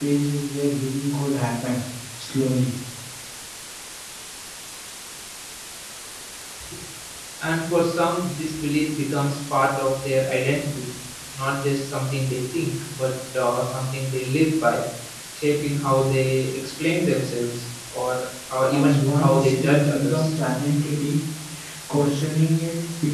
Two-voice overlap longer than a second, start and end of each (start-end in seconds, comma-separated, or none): 18.7-20.3